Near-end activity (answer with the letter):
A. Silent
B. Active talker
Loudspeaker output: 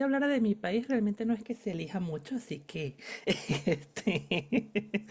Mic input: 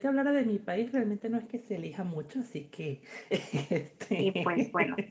B